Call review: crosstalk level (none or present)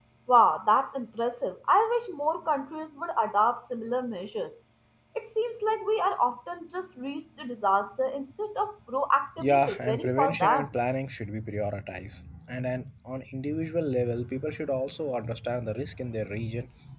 present